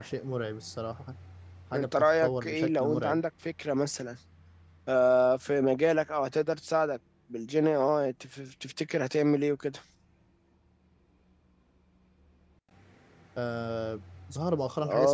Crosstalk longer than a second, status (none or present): present